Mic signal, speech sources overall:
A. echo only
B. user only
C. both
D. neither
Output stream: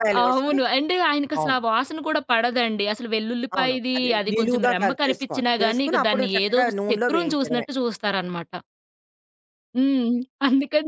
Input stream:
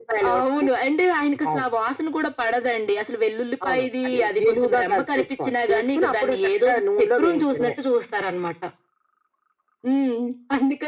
A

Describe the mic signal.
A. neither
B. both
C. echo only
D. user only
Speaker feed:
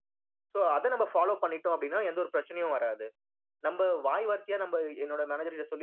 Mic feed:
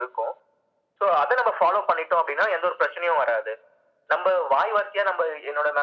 C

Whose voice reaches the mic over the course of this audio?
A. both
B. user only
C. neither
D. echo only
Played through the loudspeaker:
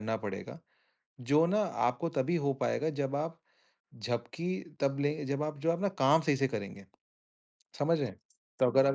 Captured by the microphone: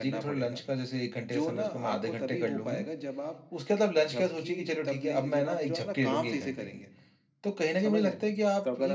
A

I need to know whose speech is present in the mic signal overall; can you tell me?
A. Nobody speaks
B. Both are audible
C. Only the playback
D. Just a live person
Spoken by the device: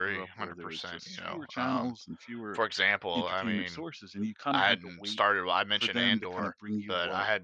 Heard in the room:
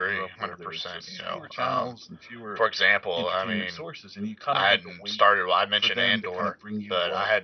C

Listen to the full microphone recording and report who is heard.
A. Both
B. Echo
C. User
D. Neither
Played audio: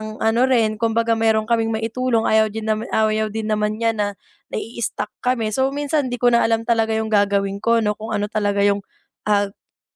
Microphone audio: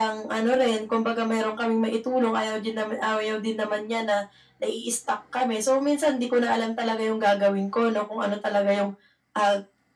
B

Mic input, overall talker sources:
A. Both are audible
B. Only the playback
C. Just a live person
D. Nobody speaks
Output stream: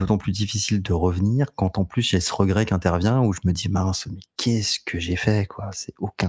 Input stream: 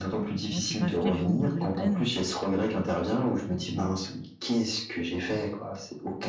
A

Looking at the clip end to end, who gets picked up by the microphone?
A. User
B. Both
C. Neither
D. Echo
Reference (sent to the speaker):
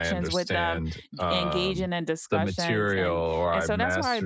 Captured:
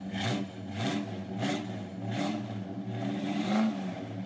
C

